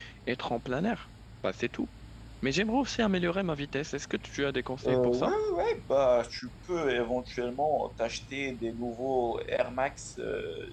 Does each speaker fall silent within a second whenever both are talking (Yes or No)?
Yes